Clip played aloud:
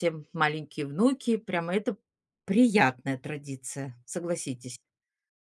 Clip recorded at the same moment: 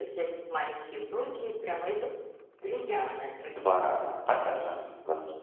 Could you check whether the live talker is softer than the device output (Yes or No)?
No